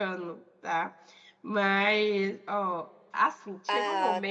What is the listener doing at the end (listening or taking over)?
listening